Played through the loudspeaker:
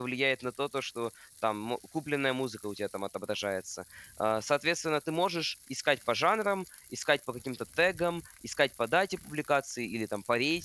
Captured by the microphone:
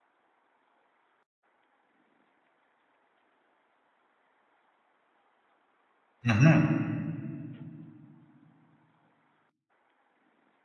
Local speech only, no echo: Мгм.

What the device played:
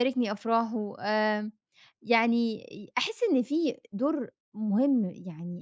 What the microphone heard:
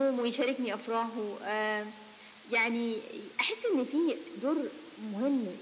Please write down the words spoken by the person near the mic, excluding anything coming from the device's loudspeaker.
none

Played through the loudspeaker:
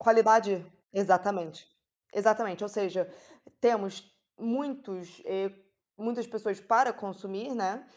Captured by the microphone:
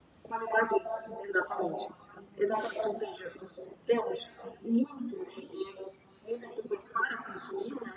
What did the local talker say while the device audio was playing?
none

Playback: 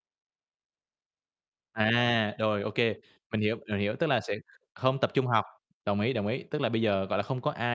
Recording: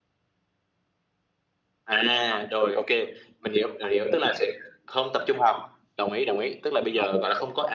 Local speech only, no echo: none

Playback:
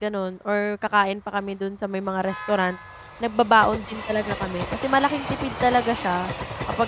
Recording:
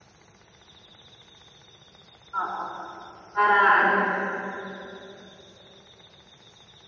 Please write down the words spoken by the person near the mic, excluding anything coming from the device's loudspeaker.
oo, para ano,

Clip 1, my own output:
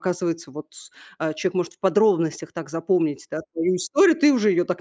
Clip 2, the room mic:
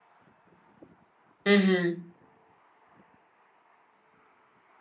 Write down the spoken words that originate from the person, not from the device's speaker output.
Мгм.

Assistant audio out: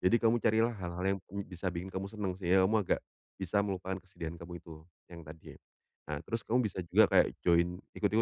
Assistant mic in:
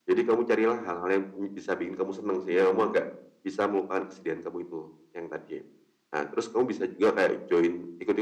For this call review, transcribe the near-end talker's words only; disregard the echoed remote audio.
none

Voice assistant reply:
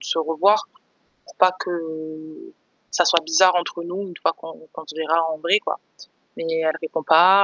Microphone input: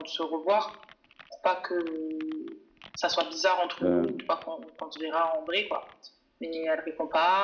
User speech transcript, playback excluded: Hem

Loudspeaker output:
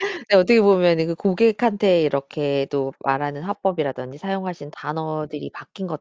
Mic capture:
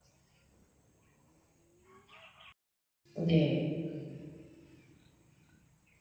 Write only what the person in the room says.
네.

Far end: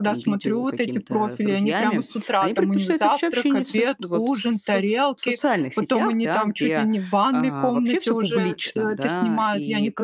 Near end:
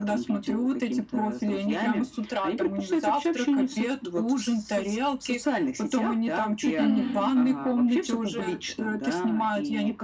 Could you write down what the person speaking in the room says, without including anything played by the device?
Мгм.

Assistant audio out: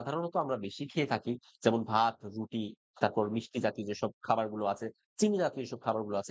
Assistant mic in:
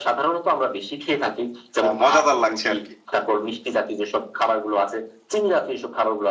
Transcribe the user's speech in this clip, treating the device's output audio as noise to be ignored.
আ মজাদার লাগছে আরকি।

